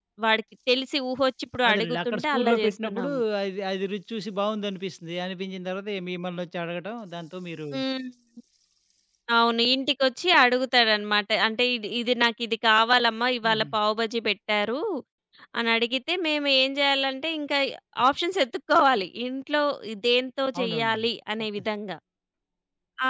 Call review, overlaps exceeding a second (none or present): present